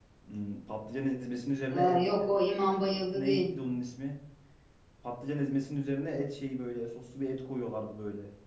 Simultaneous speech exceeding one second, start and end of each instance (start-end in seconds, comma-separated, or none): none